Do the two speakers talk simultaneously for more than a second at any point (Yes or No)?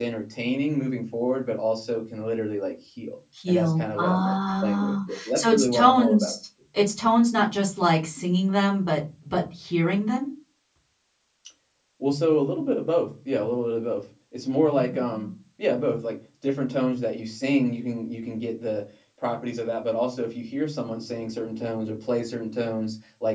Yes